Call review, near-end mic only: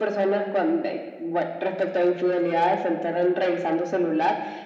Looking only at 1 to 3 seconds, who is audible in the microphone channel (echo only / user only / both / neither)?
echo only